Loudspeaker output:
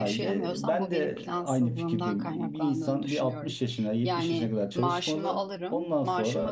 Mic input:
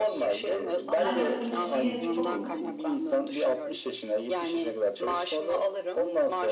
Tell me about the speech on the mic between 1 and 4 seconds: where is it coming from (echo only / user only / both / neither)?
both